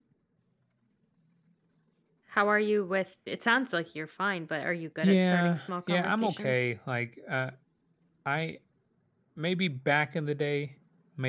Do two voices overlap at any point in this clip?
Yes, from 5.0 s

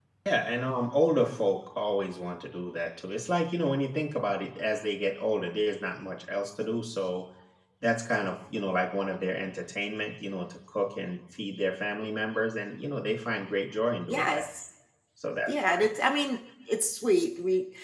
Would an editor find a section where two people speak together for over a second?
No

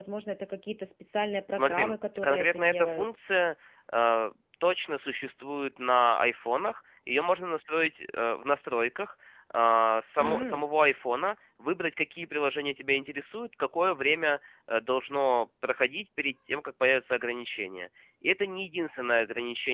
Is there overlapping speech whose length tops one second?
Yes, from 1.5 s

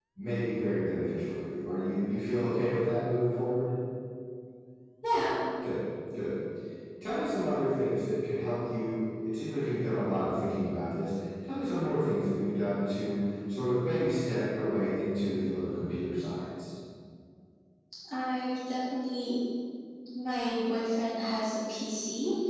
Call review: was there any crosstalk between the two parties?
No

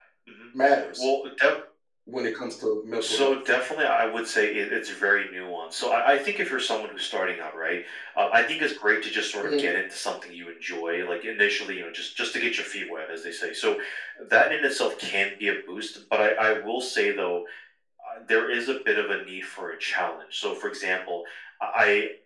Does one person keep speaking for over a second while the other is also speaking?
No

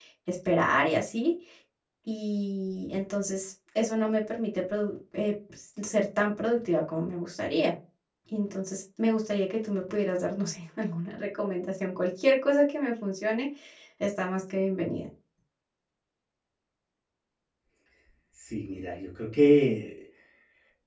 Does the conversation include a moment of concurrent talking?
No

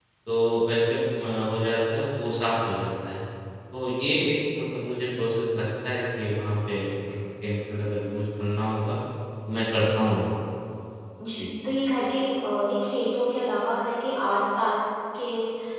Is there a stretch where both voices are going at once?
No

